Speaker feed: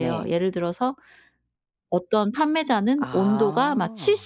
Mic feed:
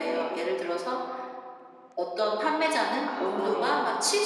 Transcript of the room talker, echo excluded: 네.

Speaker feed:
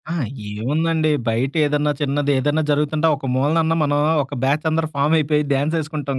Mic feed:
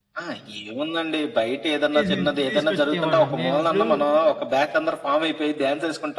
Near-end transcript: తీసు తీసుకొచ్చేవాళ్ళం మేము ఇప్పుడు

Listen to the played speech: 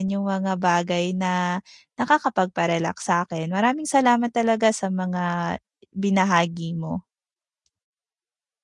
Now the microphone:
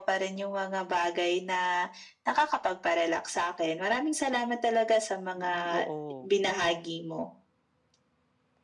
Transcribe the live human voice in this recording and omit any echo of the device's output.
Mm, oo.

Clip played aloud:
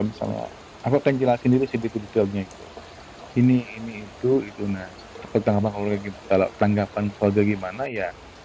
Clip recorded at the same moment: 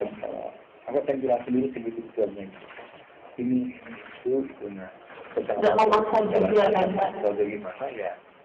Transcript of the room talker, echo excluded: nggak memaksa juga kan, Kak.

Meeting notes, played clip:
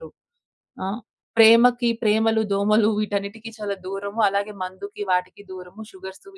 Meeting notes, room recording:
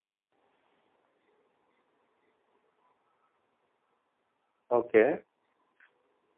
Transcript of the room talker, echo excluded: ఓకే.

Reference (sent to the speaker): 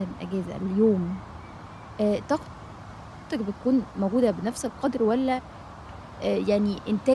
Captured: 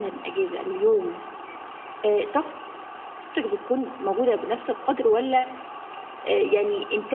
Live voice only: none

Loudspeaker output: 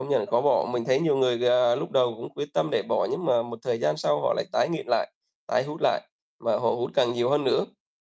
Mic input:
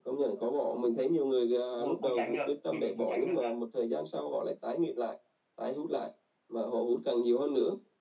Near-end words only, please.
đúng rồi, không tránh được, mình thì không tránh được thật.

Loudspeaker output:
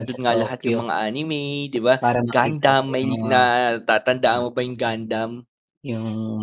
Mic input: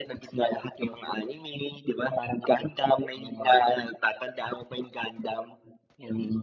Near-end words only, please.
none

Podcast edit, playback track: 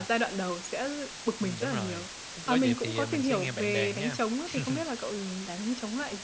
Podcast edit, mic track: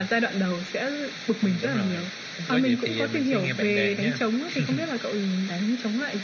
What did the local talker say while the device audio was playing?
none

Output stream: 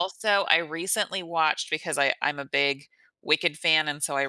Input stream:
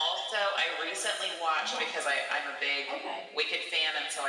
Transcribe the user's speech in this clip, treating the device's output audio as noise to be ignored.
Yes. Okay.

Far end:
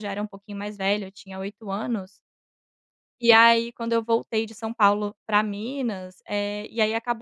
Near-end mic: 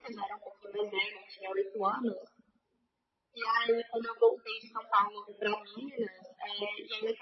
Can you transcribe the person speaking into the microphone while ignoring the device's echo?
none

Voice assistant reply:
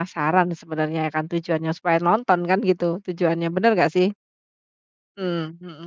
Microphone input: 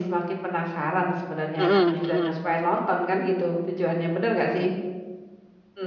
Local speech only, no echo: Mhm, mhm.

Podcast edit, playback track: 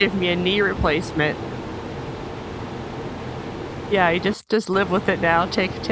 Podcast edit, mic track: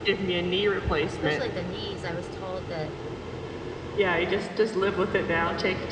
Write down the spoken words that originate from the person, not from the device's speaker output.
Especially the knees, I was told that

